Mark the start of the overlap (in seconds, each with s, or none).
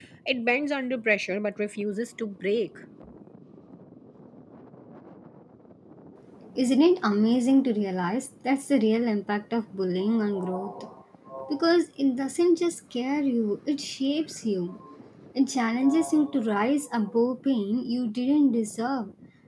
none